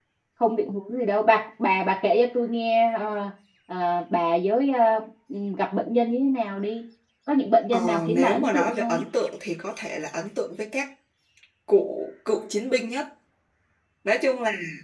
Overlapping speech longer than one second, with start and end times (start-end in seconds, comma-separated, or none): 7.7-9.1